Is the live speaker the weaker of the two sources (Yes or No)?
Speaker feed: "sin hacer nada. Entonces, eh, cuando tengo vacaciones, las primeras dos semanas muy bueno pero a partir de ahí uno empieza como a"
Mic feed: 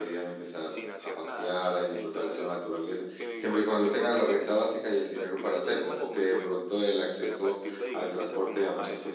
No